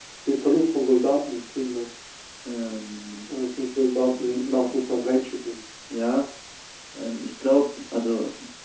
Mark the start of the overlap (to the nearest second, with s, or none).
none